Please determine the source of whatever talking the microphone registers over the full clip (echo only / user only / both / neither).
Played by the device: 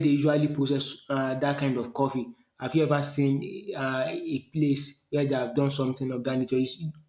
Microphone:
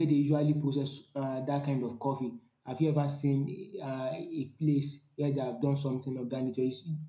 echo only